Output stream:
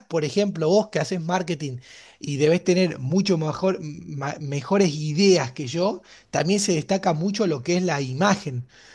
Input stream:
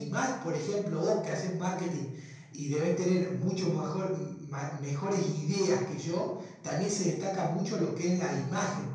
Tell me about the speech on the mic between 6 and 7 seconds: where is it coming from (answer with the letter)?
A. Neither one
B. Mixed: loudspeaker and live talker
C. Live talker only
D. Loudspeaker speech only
D